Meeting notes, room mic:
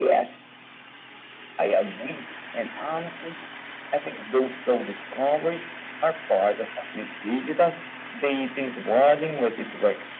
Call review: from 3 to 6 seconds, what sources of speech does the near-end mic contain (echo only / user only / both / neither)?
echo only